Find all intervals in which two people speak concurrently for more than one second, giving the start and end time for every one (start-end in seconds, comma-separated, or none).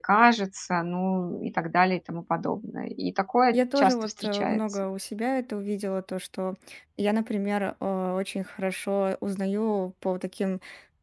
3.5-4.8